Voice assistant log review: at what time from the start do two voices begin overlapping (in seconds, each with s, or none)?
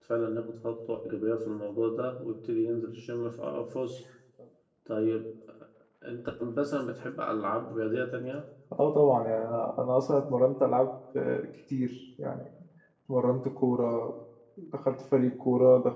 none